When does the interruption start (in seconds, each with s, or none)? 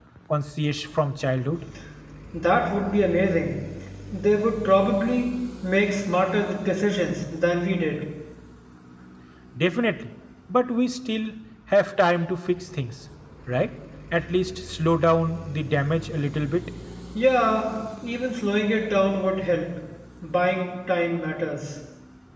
none